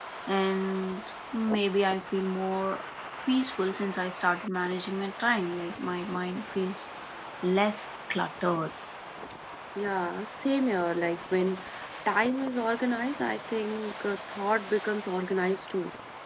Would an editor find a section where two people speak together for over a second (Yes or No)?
No